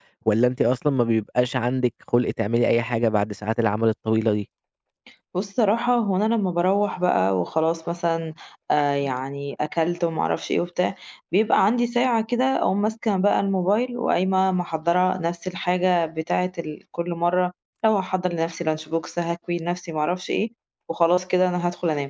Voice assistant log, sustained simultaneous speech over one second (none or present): none